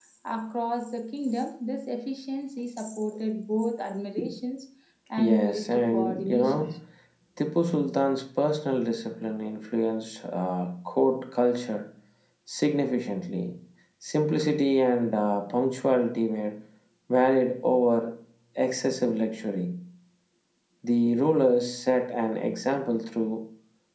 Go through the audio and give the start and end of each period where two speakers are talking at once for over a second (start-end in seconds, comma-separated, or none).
5.2-6.6